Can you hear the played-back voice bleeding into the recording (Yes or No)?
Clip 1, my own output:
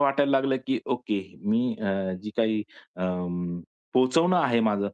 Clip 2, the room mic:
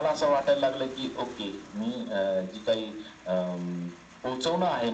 Yes